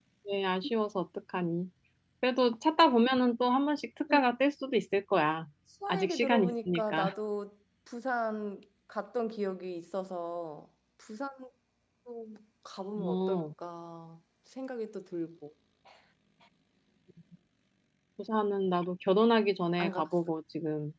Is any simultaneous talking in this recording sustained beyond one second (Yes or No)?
Yes